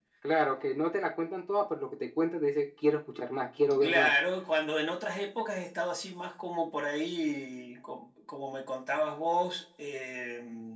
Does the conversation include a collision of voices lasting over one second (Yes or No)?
No